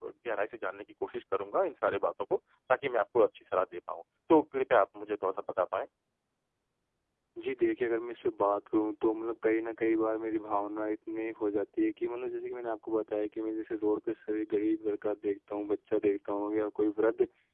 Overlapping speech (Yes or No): No